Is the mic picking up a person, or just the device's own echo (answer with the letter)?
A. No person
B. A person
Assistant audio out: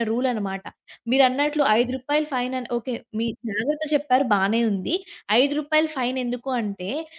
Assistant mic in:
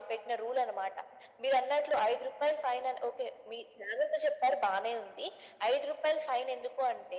A